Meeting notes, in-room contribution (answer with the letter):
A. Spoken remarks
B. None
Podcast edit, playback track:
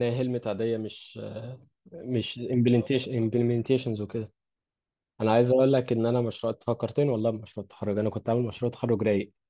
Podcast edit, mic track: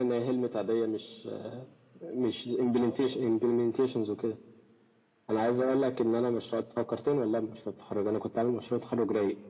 B